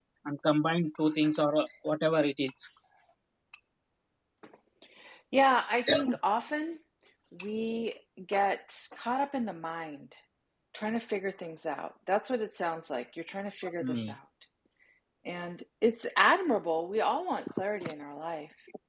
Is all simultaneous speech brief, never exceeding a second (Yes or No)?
Yes